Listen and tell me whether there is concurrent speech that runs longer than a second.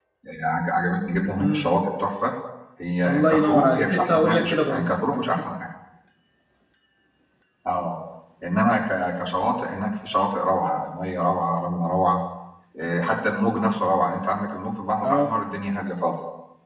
Yes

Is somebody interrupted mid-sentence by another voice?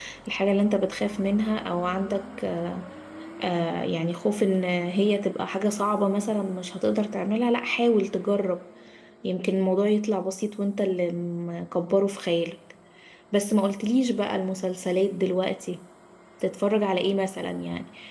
No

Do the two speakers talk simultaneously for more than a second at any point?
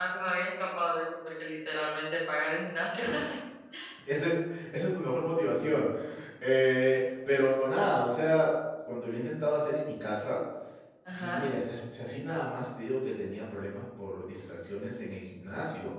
No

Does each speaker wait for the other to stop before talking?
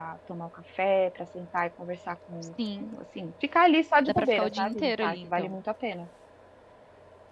No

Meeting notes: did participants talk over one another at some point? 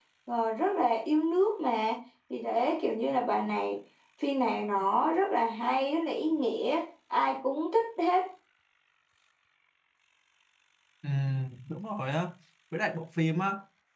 No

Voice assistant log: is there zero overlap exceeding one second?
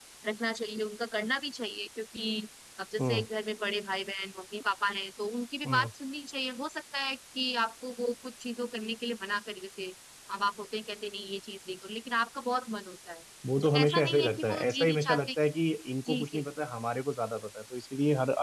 No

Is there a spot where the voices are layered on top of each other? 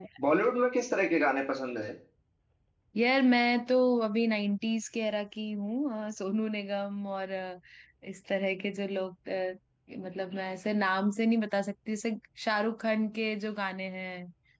No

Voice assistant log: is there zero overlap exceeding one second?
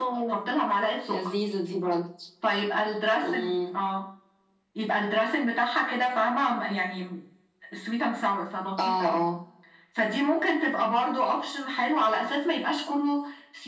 Yes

